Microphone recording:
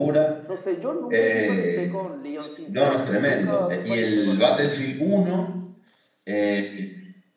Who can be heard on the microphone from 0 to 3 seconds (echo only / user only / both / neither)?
both